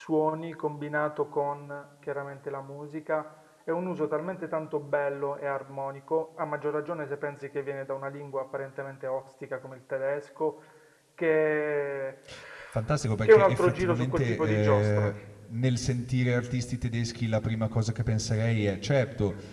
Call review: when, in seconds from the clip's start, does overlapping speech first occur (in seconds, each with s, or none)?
13.2 s